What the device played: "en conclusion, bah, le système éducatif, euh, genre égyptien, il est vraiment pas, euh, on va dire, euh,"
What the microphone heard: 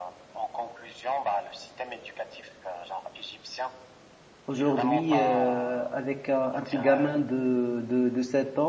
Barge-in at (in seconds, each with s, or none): 4.5 s